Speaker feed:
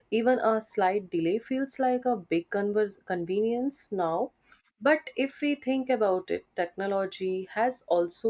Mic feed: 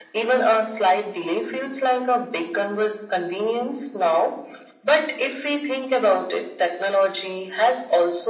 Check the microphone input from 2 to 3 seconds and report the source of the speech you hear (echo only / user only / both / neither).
echo only